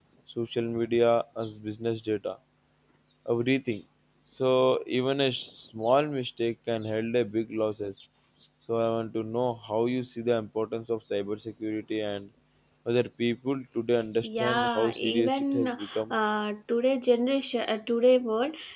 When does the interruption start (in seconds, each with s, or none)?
14.2 s